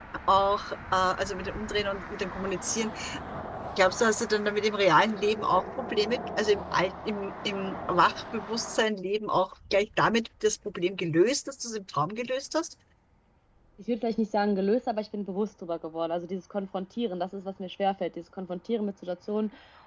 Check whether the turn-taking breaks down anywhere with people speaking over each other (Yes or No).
No